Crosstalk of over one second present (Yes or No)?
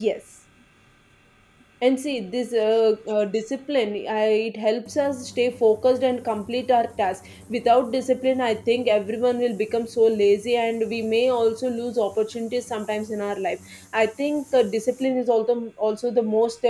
No